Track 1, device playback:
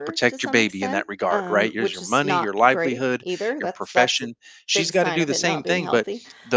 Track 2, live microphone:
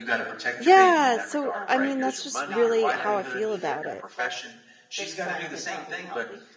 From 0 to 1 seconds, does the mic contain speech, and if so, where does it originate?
both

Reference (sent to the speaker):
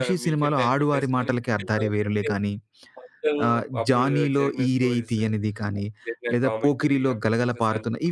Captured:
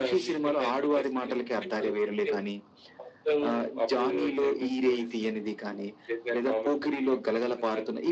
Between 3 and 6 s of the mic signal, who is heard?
echo only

